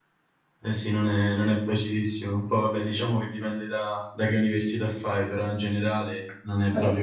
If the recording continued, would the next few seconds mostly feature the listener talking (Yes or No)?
Yes